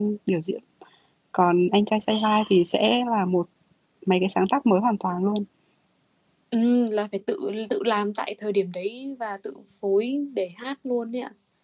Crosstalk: none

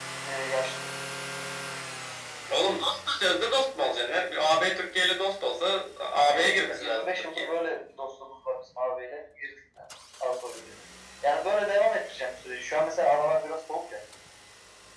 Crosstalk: present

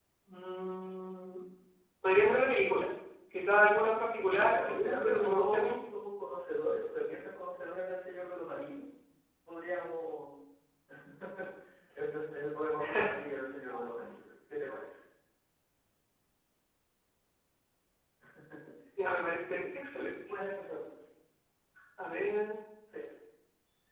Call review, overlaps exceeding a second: present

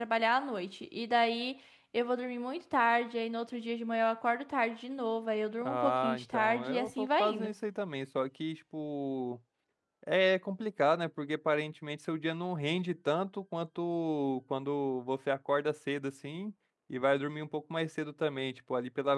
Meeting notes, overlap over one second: present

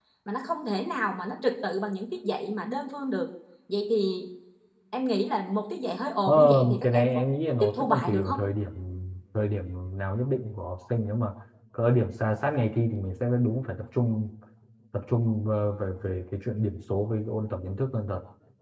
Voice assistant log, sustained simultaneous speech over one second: present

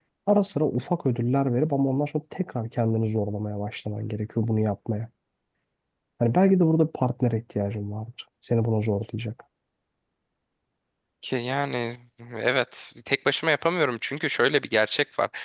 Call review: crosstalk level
none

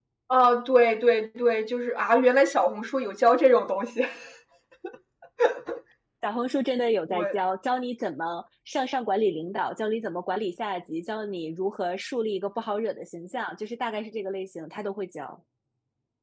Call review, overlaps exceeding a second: none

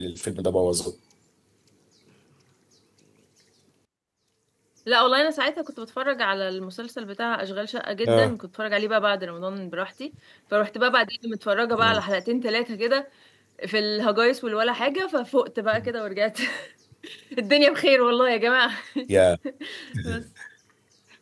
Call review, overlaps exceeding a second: none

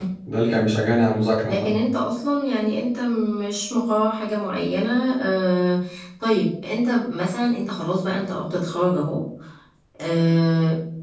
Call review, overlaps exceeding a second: none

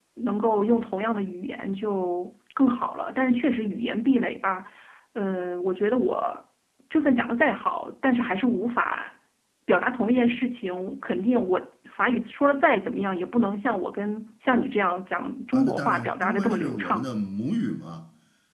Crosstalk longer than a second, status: present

